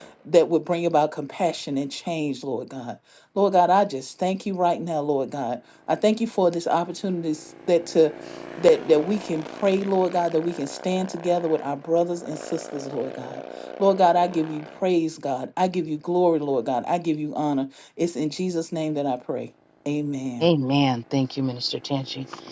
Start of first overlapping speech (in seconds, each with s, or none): none